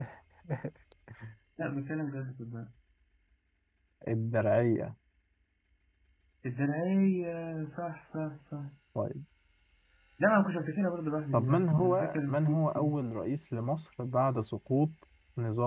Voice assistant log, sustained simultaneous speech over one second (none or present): present